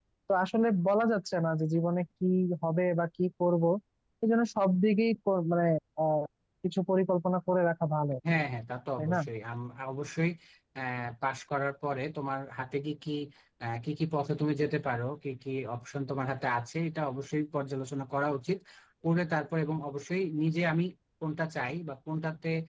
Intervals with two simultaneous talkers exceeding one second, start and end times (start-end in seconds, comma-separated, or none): none